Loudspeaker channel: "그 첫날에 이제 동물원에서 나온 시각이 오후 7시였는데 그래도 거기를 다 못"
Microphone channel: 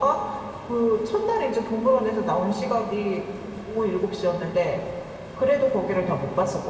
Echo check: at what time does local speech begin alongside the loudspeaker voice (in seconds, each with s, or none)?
none